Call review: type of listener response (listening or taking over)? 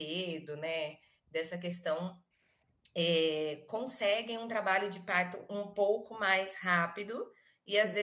listening